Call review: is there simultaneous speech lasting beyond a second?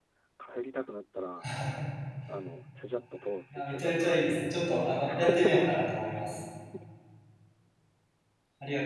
Yes, from 3.5 s

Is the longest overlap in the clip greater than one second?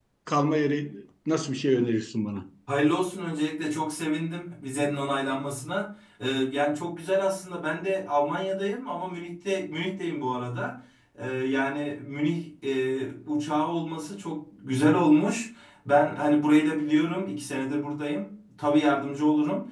No

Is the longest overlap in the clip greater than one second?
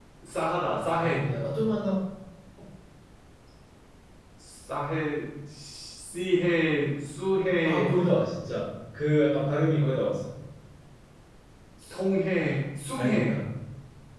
No

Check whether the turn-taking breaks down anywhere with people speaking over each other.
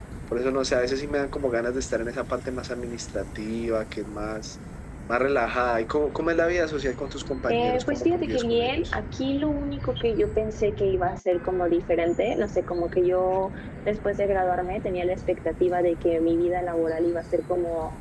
Yes, from 7.5 s

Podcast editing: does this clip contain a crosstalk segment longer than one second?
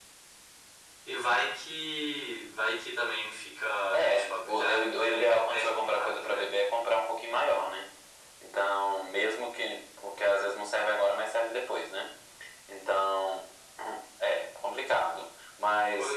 Yes, from 3.9 s

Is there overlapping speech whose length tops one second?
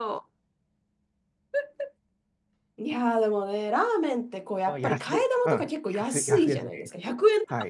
Yes, from 4.7 s

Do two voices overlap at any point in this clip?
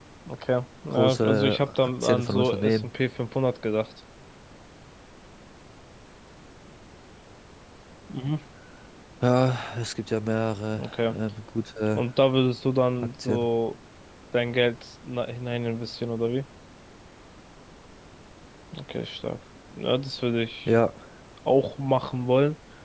Yes, from 0.9 s

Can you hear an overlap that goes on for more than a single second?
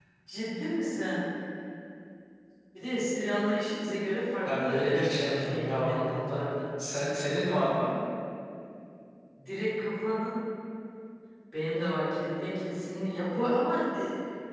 Yes, from 4.5 s

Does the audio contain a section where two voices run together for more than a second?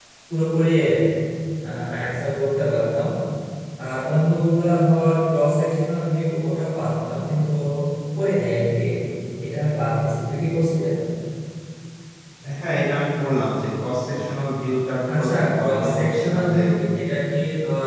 Yes, from 15.1 s

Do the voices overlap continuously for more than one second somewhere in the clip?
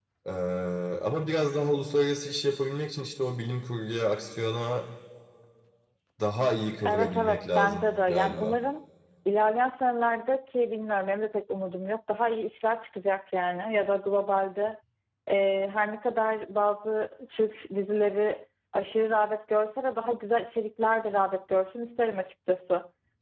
Yes, from 6.9 s

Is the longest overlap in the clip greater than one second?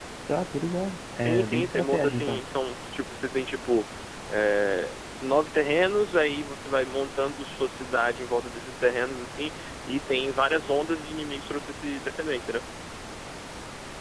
Yes, from 1.2 s

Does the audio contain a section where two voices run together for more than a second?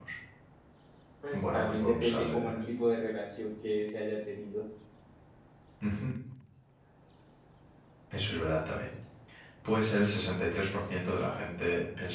Yes, from 1.3 s

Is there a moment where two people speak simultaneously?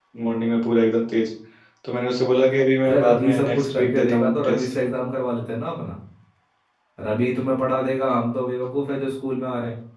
Yes, from 2.8 s

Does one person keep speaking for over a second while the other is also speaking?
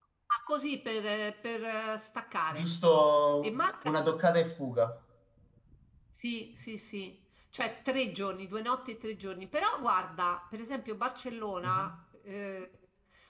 No

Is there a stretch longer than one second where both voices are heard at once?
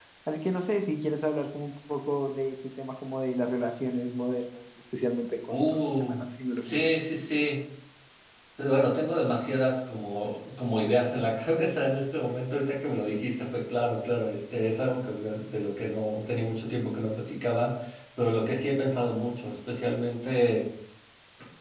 Yes, from 5.5 s

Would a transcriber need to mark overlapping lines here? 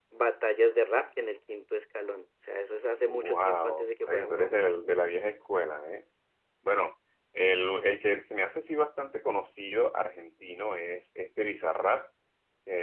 Yes, from 3.1 s

